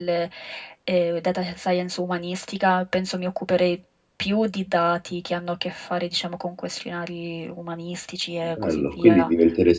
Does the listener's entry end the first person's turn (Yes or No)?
Yes